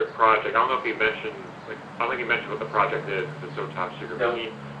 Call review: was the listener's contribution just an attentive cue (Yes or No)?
Yes